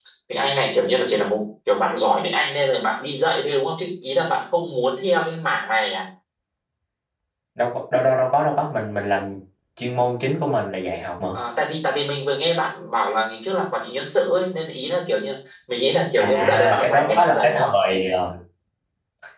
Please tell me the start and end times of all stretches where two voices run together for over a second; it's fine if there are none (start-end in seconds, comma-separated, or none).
16.2-17.7